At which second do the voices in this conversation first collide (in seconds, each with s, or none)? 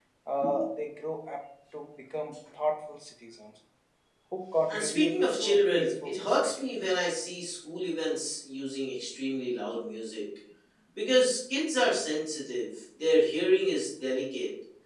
4.7 s